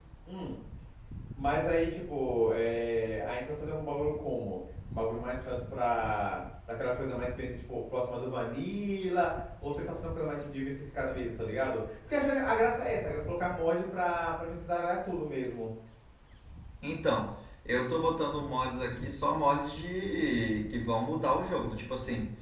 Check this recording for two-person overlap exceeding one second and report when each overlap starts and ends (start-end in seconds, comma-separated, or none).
none